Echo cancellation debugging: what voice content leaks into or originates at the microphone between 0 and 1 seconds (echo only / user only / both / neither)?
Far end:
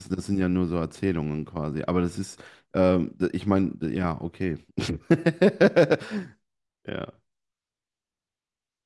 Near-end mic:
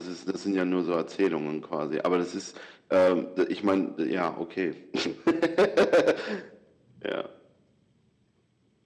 echo only